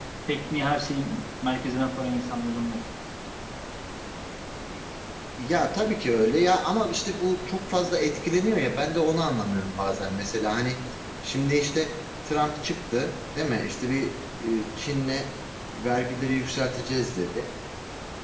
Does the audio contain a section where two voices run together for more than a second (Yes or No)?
No